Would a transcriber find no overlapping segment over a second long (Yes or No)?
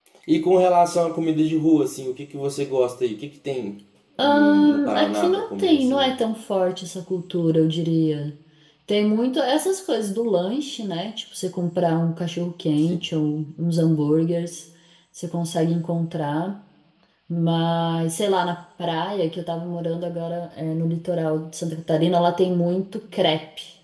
No